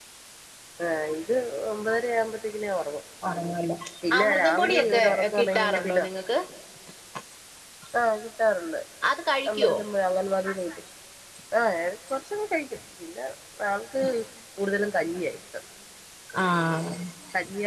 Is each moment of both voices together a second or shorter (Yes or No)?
No